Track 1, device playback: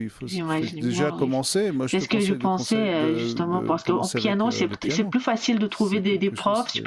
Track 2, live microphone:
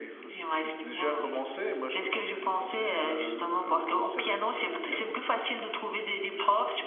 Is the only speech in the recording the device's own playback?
Yes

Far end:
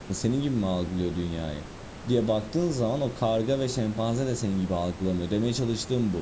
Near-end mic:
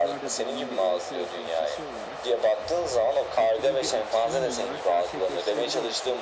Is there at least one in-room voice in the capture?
Yes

